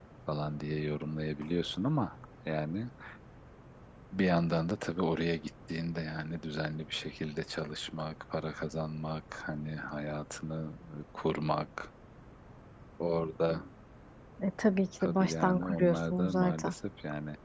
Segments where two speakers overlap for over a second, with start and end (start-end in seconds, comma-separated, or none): 15.0-16.7